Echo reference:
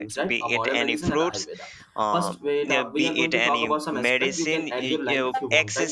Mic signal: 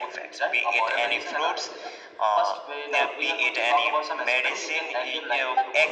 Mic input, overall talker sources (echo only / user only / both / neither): echo only